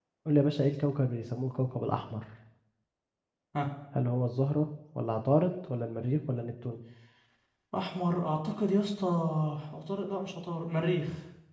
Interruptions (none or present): none